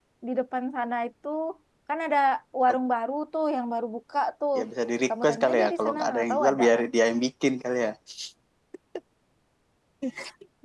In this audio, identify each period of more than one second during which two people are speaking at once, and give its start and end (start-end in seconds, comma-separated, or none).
5.2-6.9